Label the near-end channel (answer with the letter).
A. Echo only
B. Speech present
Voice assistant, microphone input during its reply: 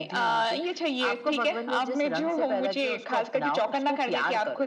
A